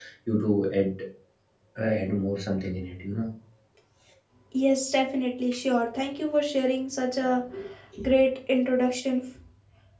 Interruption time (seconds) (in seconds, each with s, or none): none